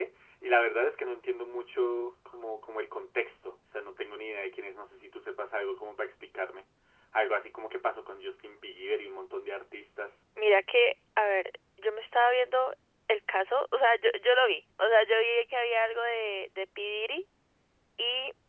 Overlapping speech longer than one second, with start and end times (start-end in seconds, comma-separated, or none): none